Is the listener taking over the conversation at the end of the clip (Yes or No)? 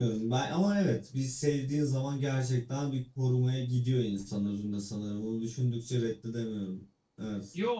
Yes